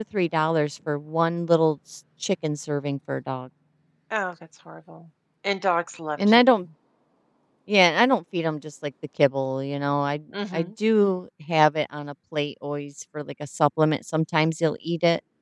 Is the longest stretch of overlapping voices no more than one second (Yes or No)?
Yes